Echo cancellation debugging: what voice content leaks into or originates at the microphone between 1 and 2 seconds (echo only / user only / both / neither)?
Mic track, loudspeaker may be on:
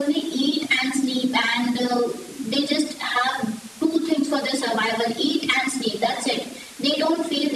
echo only